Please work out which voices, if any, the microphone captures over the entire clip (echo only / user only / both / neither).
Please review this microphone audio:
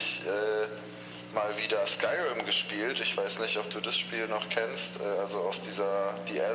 echo only